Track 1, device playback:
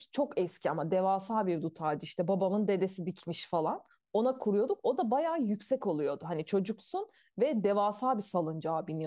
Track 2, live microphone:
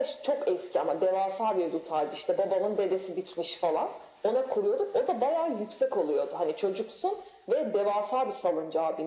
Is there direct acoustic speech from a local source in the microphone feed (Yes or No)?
No